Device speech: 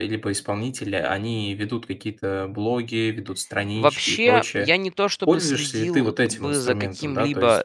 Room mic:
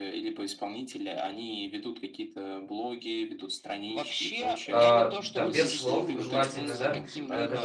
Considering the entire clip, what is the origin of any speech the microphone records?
both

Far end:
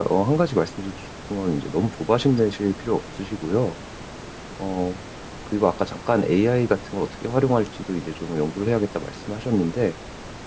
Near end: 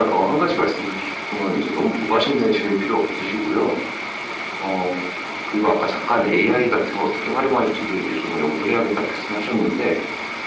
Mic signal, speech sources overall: both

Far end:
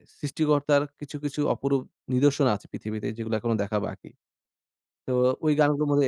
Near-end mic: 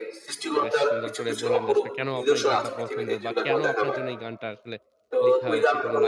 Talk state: both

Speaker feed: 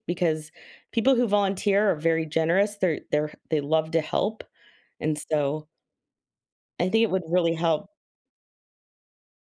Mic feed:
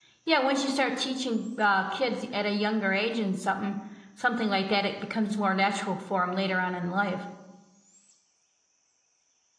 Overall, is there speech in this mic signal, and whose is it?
user only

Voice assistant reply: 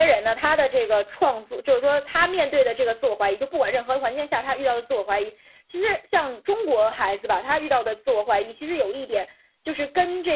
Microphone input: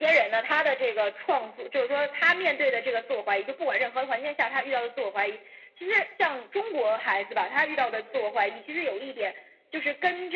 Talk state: echo only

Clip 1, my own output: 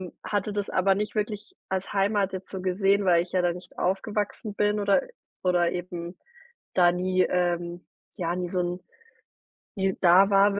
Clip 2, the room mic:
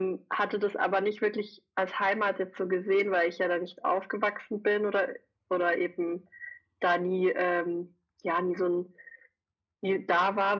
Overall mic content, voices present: echo only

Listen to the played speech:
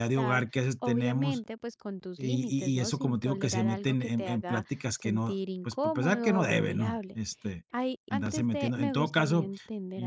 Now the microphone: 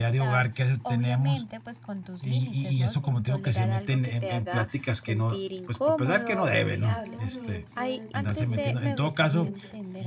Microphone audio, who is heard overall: both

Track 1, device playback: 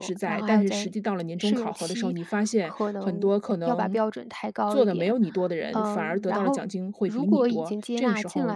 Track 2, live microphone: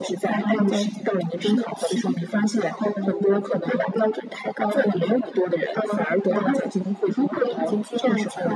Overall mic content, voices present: echo only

